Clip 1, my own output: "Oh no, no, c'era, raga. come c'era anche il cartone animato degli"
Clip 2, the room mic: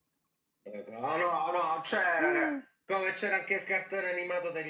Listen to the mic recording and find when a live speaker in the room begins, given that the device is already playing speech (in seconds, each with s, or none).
2.0 s